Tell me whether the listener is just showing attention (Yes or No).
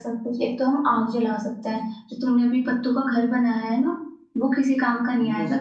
Yes